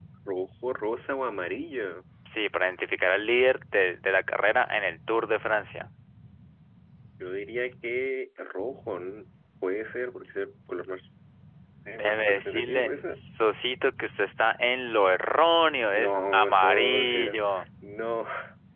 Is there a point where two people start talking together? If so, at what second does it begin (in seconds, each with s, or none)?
11.9 s